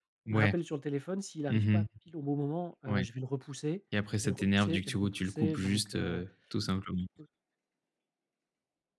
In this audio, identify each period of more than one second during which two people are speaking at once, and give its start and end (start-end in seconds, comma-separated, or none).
4.2-6.2